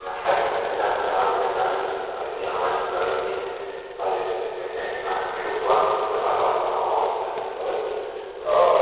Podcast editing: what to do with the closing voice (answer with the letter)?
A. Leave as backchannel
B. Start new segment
B